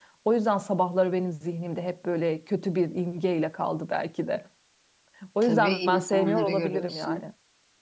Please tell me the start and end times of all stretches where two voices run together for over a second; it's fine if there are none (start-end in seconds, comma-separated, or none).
5.4-7.2